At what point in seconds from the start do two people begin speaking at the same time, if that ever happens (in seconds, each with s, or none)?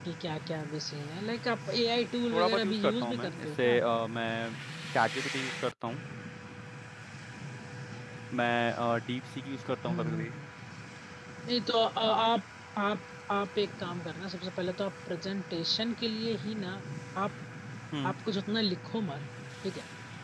2.3 s